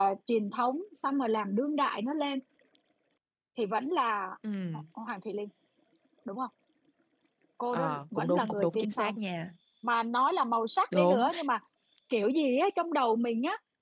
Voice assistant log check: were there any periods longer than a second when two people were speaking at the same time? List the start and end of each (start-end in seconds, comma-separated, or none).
7.7-9.1